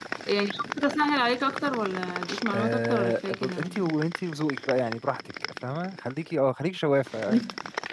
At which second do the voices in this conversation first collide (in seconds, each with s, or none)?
2.5 s